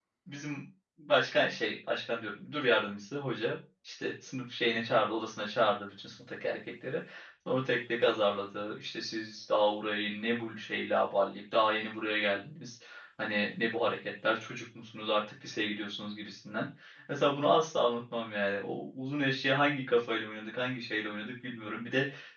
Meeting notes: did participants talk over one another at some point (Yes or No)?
No